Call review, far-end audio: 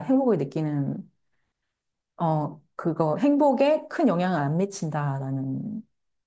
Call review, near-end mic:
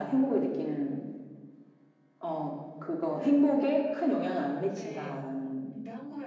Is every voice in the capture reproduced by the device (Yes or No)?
No